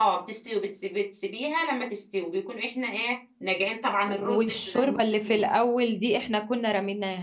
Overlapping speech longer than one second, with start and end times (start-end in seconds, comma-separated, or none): 4.1-5.4